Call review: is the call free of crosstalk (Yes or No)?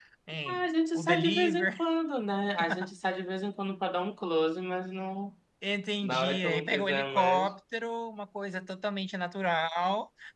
No